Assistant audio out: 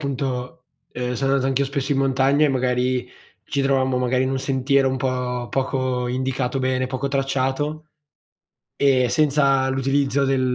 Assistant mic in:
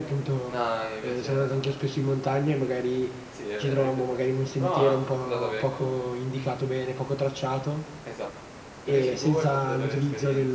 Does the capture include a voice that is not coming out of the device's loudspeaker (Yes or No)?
Yes